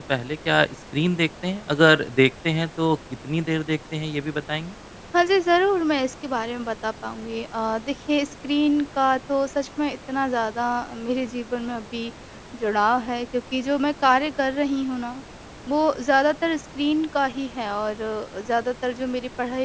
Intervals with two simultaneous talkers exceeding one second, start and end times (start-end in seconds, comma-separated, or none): none